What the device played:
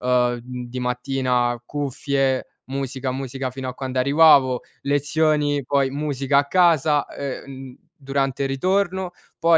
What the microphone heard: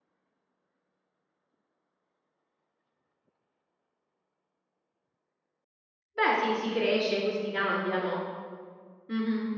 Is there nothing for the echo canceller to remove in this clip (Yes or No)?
Yes